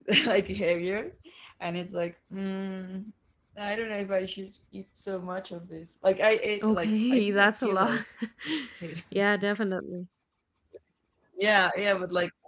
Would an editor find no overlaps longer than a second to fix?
No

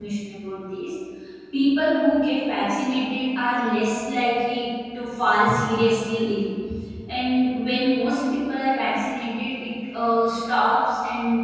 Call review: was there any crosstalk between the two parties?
No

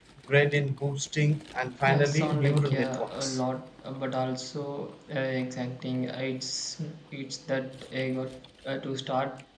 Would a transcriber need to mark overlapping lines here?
Yes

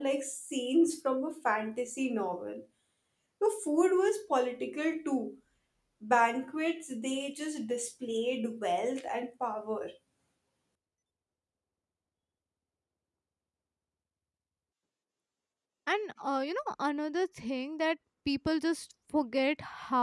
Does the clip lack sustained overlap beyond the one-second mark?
Yes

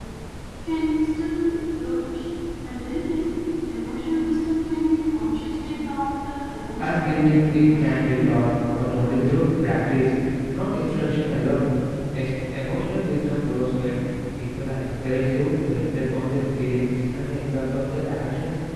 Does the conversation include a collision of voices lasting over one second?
Yes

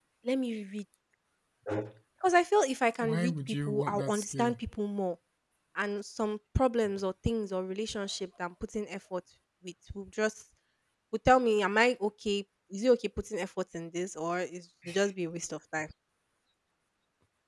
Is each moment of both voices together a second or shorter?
No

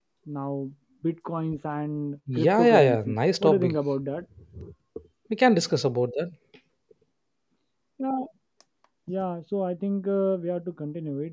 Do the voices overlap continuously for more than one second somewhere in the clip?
Yes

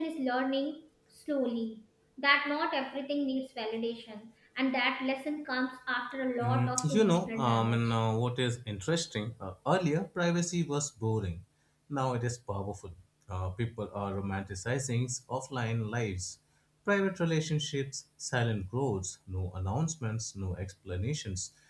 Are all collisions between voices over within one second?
No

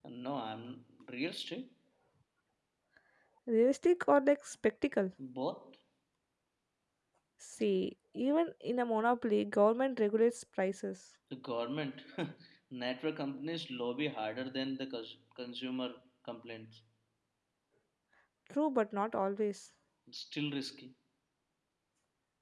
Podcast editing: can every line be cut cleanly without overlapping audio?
Yes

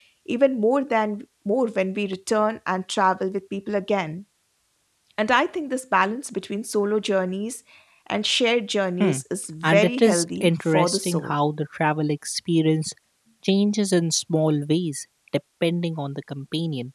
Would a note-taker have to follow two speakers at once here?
Yes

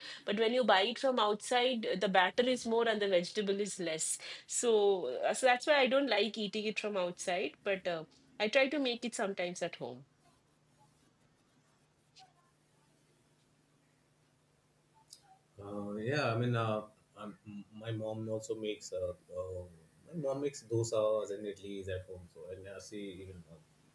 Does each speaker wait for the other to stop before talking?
Yes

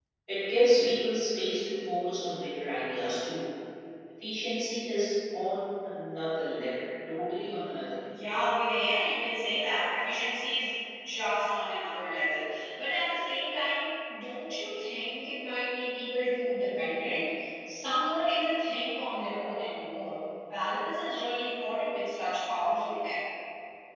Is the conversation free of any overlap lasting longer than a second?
Yes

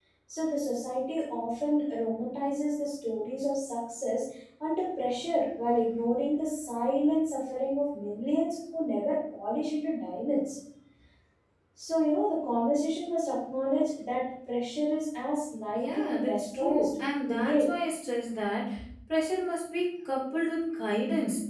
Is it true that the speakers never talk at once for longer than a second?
No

